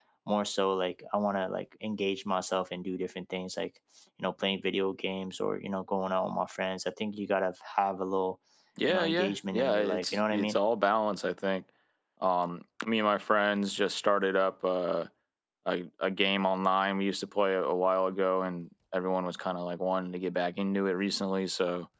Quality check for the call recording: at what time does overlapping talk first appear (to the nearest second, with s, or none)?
9 s